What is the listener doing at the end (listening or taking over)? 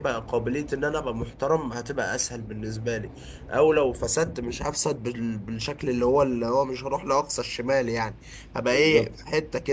listening